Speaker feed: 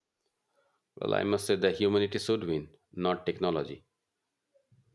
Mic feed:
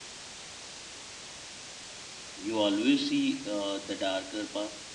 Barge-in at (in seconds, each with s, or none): 2.4 s